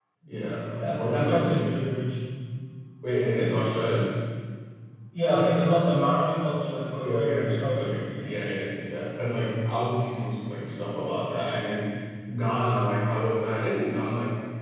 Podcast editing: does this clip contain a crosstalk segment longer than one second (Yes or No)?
Yes